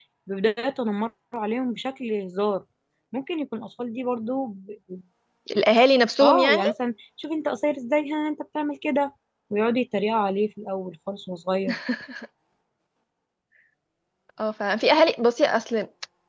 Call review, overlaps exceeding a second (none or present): none